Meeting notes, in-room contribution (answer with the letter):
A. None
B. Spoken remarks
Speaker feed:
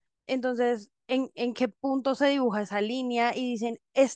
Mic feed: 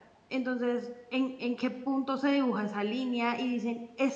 A